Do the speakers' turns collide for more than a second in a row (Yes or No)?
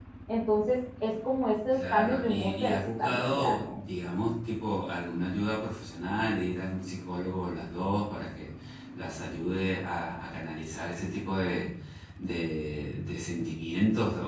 Yes